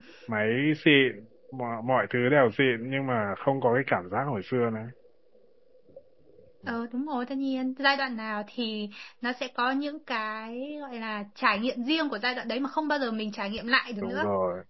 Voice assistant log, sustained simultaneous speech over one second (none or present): none